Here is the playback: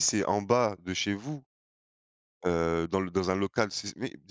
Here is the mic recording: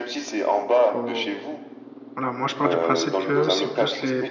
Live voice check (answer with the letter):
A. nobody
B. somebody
B